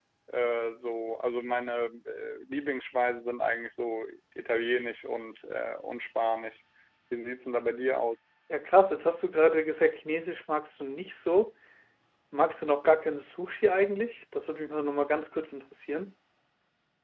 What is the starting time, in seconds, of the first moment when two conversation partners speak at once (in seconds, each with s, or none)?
none